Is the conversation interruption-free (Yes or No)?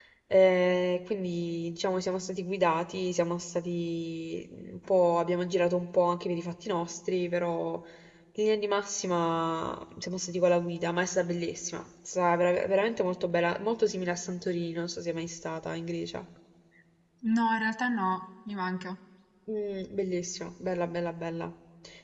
Yes